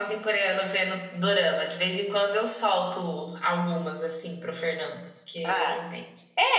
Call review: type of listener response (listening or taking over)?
taking over